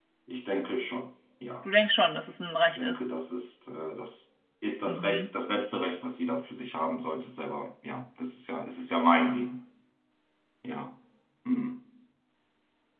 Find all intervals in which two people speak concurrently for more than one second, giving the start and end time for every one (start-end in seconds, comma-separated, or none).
none